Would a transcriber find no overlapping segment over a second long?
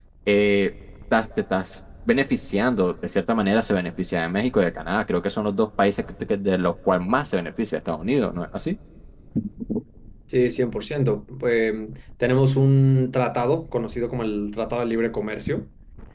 Yes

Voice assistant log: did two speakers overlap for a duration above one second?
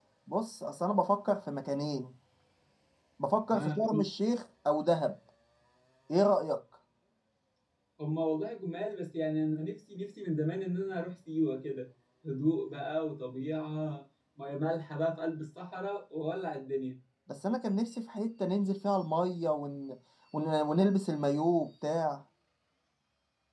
No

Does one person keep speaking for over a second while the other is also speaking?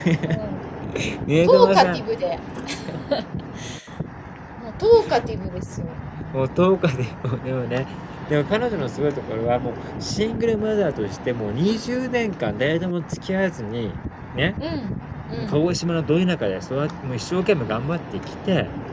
No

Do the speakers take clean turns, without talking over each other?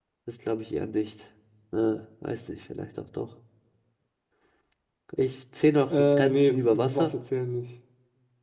No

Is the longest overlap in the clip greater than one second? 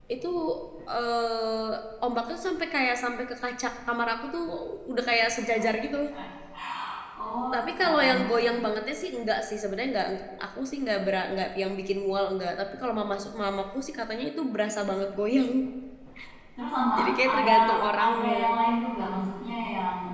Yes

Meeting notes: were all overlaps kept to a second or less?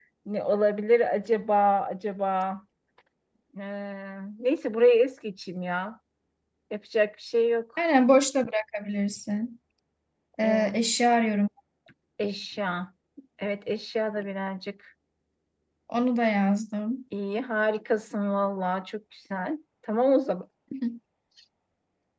Yes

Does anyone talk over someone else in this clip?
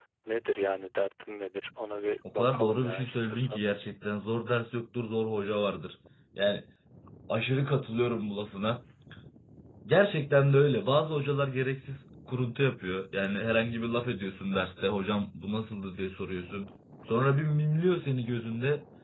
Yes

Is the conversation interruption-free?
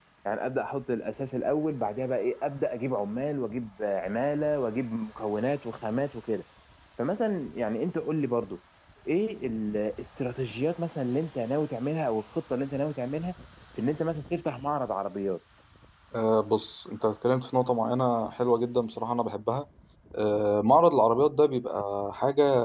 Yes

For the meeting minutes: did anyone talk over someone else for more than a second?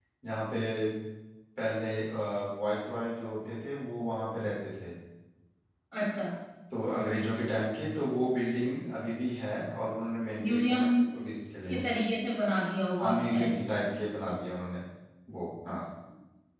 No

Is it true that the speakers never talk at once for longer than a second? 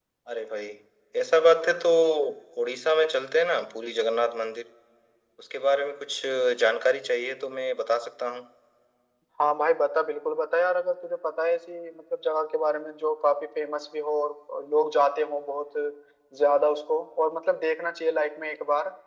Yes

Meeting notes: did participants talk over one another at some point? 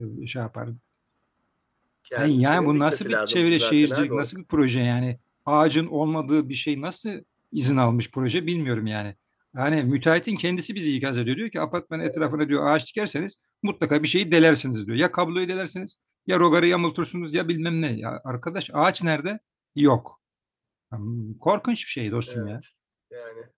Yes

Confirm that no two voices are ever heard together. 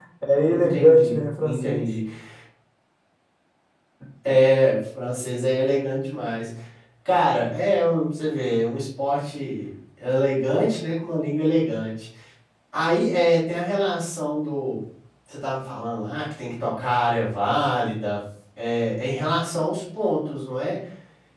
No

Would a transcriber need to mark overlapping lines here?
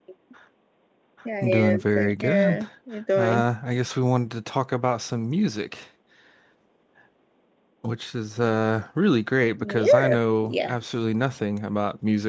Yes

